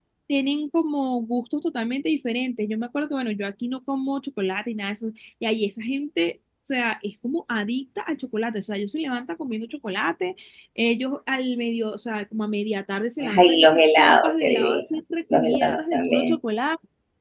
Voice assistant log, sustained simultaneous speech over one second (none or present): present